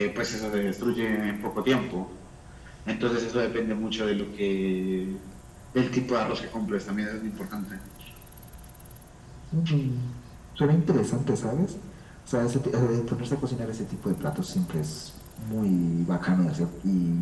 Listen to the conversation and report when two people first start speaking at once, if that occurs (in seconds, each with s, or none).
none